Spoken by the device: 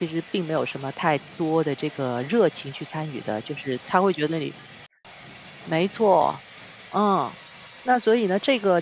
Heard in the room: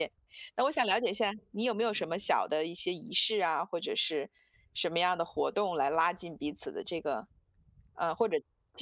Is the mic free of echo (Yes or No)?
Yes